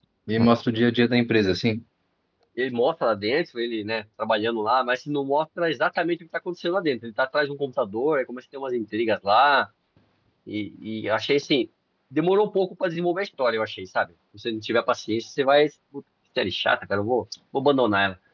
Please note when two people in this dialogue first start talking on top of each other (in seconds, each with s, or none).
none